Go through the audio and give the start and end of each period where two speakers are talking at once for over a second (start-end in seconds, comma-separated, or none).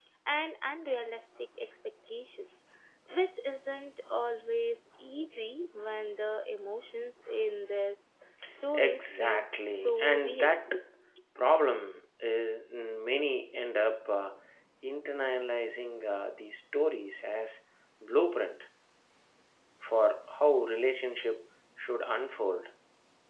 8.7-10.5